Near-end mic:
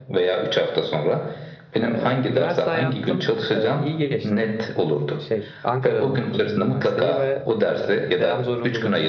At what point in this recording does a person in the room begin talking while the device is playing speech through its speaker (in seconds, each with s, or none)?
1.8 s